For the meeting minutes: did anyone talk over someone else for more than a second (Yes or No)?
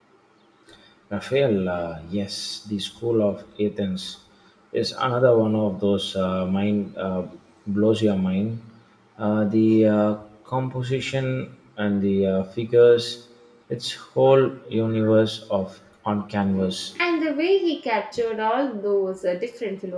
No